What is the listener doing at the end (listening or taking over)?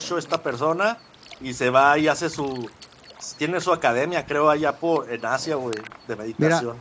taking over